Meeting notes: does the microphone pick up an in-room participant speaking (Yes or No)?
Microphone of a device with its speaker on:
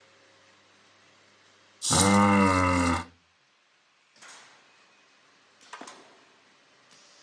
Yes